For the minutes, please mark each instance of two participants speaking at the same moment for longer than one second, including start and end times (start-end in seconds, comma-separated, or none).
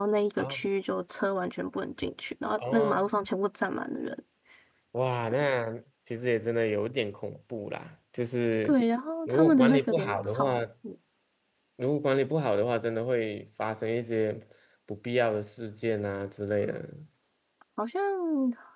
9.3-10.5